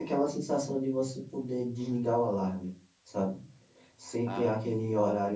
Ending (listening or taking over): listening